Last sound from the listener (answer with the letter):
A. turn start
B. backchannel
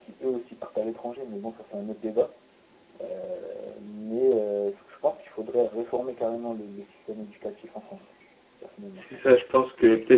A